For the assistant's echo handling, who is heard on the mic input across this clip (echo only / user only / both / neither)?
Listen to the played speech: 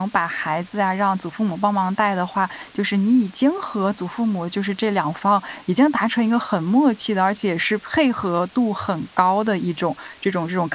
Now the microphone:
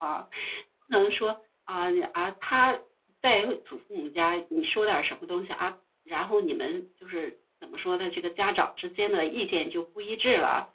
user only